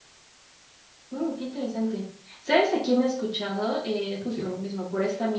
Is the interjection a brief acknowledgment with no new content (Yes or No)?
Yes